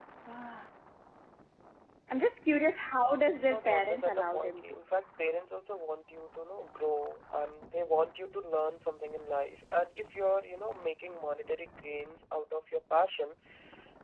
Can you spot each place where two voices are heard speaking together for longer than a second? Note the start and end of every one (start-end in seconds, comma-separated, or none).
3.4-4.8